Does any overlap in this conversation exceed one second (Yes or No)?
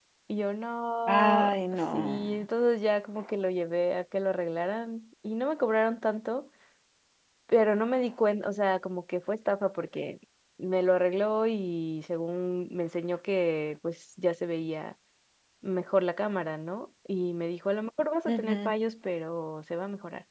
Yes